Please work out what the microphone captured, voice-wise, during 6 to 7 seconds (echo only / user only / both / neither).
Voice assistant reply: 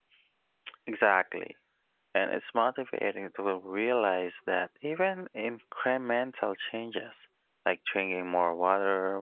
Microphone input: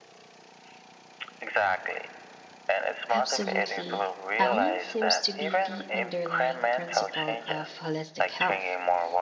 both